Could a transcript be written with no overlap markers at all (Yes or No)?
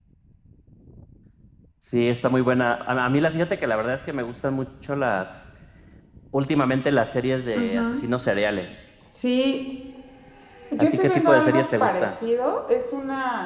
No